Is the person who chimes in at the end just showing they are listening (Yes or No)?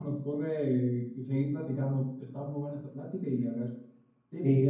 No